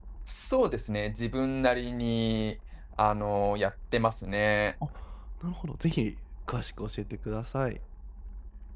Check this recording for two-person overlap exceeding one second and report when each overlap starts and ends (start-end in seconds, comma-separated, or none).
none